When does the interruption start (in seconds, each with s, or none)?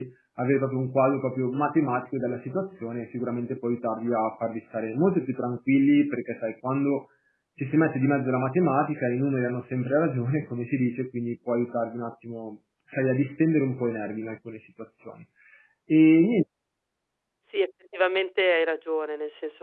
none